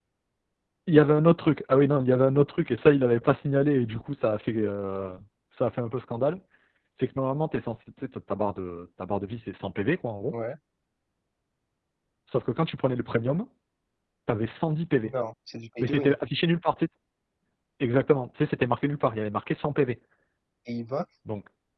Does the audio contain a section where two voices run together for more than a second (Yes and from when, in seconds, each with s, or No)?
No